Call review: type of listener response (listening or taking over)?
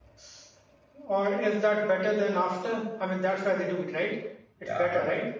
taking over